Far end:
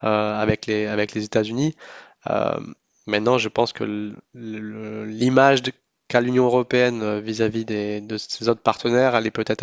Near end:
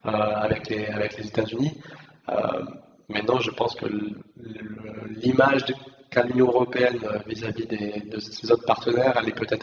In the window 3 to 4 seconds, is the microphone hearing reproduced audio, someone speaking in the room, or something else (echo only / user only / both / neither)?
echo only